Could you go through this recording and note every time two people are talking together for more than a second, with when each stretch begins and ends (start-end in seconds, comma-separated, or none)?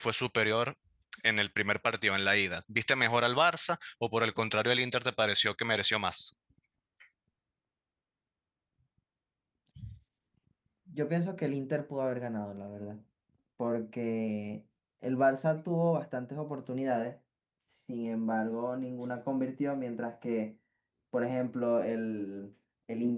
none